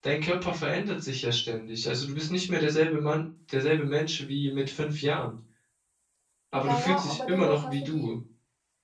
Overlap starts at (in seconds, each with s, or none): 6.5 s